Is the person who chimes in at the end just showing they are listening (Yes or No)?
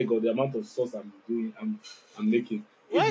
No